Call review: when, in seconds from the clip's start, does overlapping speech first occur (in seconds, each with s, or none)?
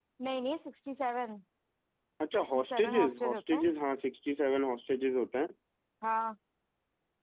2.3 s